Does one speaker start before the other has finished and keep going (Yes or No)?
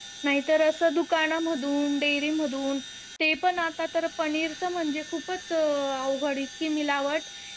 No